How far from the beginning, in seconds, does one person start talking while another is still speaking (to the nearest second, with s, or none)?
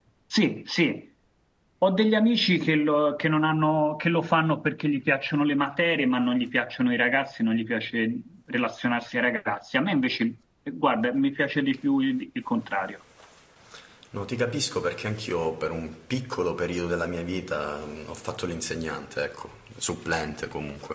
none